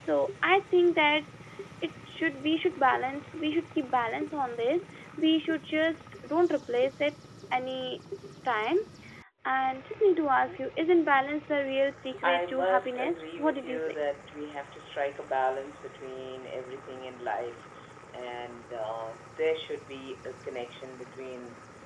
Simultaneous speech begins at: 12 s

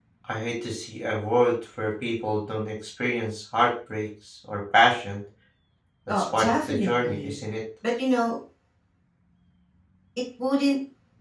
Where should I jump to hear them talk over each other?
6 s

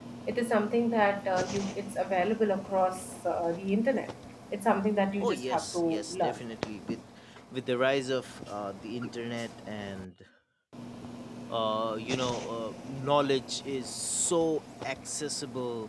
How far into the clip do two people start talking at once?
5 s

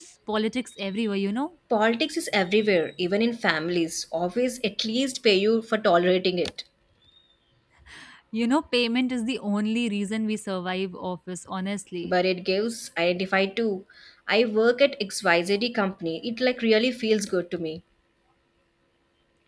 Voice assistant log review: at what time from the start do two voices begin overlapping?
none

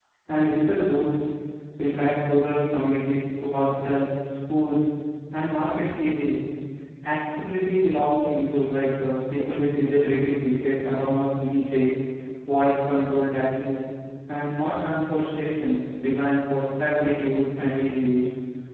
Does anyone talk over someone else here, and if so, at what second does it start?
none

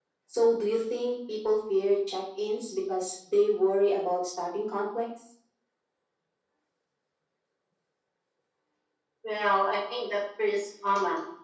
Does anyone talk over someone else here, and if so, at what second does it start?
none

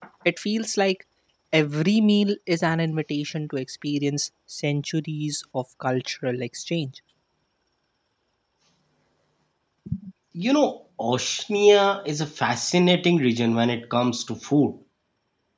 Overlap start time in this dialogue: none

